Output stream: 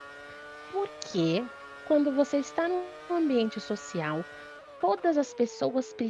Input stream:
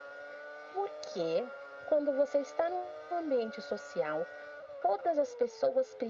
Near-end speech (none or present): none